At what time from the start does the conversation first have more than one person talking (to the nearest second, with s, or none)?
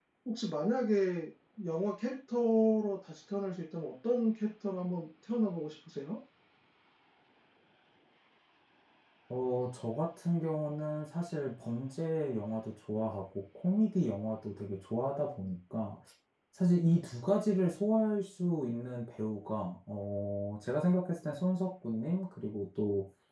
none